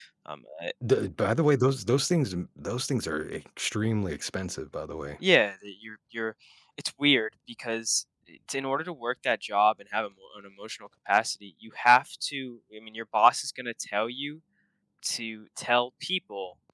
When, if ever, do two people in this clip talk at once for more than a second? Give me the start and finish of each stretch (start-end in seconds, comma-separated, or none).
none